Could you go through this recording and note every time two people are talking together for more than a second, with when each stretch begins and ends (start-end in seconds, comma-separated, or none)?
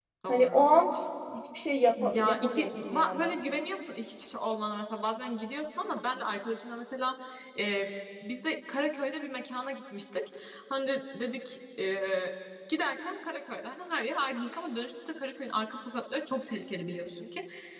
2.0-3.3